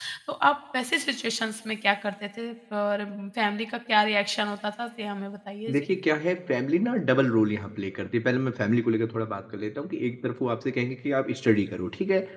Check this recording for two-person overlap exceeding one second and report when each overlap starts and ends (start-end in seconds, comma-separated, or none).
none